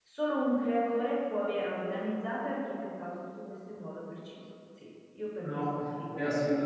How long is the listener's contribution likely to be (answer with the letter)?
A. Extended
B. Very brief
A